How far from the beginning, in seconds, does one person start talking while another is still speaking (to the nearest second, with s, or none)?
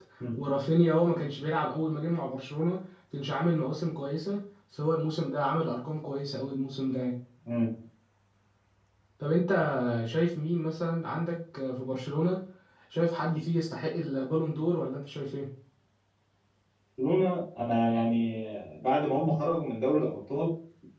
none